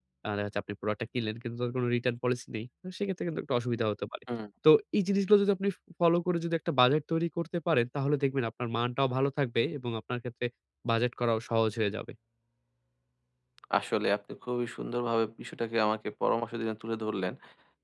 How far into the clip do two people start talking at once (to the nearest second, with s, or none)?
none